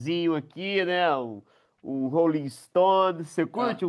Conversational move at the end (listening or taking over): listening